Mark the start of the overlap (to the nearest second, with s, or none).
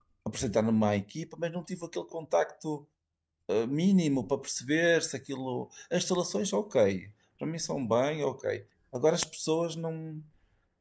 none